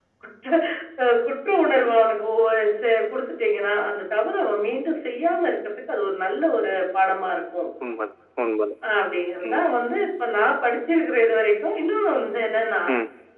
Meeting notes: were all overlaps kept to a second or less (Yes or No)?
Yes